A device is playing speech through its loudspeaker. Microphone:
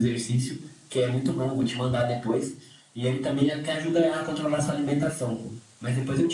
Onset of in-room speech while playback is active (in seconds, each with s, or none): none